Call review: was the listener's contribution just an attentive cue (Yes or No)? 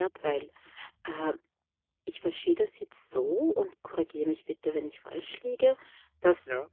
Yes